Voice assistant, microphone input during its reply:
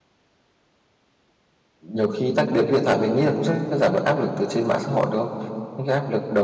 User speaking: Yes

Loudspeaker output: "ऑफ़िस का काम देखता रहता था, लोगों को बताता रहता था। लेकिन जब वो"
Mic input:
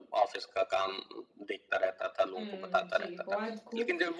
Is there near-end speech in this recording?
Yes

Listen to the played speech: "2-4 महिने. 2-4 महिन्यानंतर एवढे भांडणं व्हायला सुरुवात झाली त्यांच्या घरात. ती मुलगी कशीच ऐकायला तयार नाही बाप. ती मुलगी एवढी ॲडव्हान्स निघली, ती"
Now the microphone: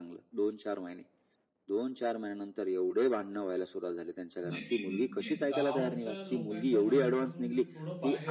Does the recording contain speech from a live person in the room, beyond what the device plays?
Yes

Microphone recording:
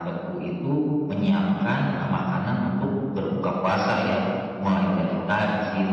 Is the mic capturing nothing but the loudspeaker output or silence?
Yes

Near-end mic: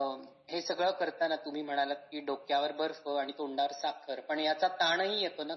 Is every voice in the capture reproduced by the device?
Yes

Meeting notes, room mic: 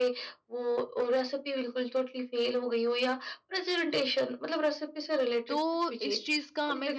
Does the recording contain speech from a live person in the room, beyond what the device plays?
Yes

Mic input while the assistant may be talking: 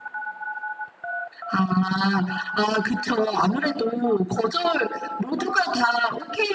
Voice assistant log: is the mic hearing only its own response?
Yes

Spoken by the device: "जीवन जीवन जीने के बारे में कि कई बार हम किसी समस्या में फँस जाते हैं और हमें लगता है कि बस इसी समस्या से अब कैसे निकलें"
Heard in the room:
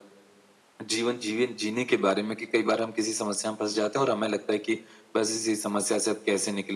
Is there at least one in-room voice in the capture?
No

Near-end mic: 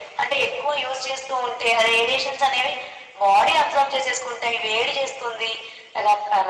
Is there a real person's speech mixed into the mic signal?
No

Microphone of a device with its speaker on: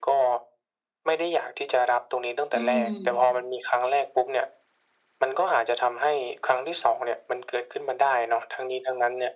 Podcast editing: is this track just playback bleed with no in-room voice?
No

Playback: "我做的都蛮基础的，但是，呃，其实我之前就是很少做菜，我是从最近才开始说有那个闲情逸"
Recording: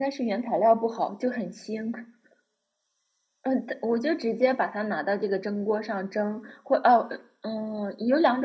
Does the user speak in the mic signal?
Yes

